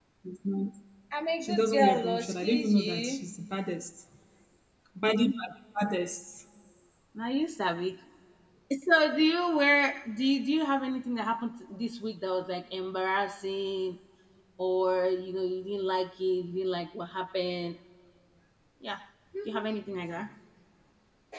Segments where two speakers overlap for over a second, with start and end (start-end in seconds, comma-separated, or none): 1.4-3.2